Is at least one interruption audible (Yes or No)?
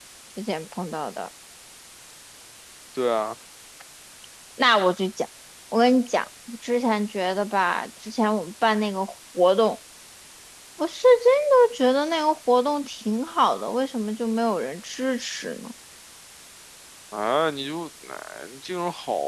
No